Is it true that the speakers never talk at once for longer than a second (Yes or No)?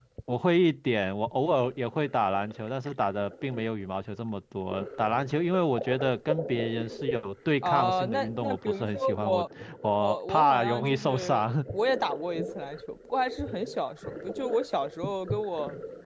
No